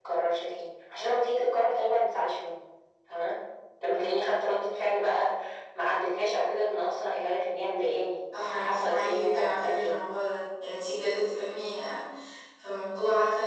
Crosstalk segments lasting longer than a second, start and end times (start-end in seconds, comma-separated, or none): 8.5-10.0